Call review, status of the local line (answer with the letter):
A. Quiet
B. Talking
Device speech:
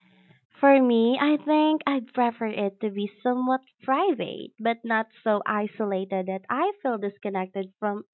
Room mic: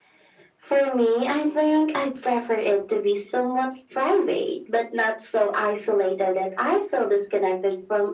A